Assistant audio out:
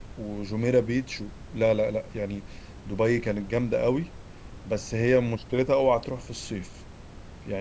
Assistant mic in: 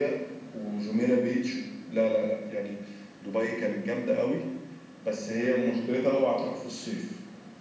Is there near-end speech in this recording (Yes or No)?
No